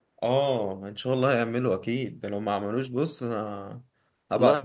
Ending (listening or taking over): taking over